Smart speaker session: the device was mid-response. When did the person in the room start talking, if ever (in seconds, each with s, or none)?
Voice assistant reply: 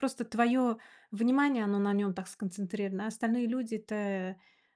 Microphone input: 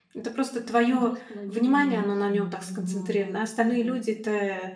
0.9 s